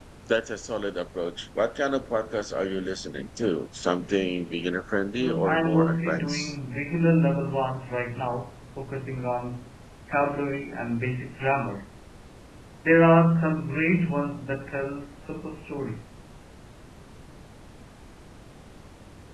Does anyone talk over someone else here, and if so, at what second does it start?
5 s

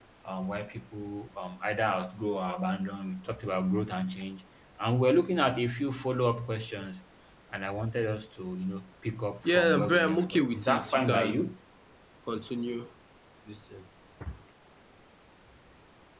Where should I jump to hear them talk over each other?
9 s

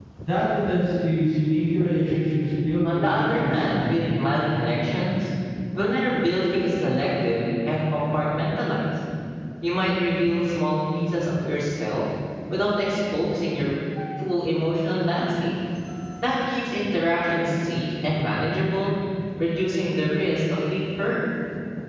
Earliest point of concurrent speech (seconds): 3 s

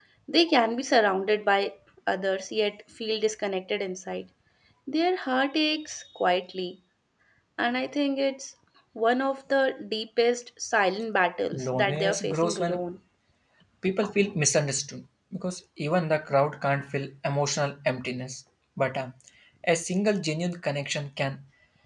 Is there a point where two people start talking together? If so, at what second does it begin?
12 s

